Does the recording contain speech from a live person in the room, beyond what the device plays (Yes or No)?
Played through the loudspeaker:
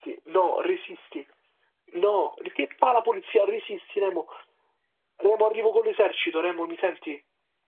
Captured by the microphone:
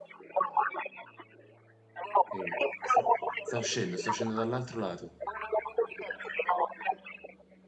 Yes